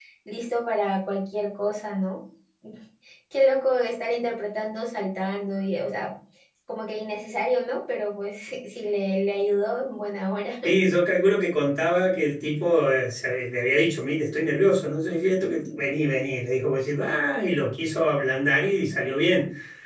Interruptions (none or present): none